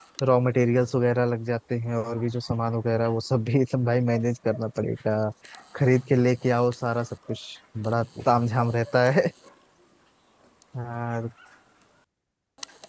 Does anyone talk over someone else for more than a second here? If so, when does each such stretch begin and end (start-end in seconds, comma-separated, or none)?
none